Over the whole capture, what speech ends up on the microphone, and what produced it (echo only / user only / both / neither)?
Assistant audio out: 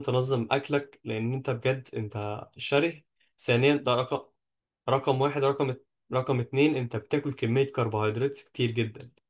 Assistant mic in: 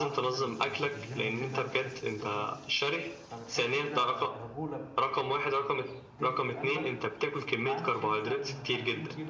both